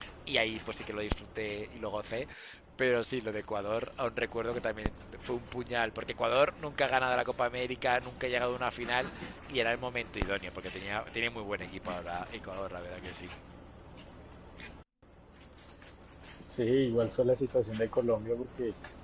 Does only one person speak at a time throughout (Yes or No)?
Yes